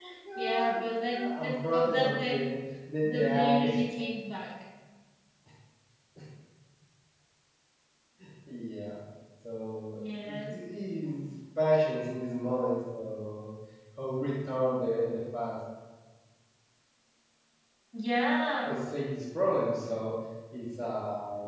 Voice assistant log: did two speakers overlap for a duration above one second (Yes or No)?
Yes